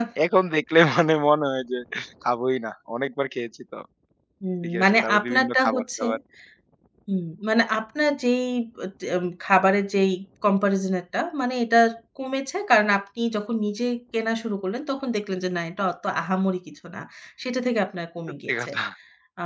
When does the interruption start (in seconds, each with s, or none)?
4.8 s